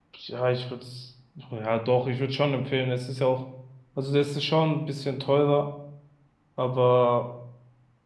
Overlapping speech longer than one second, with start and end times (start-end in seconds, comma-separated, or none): none